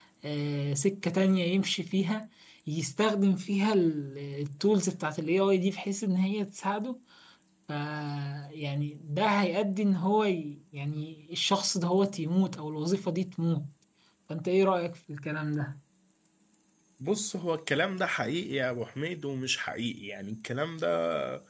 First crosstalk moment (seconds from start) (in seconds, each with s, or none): none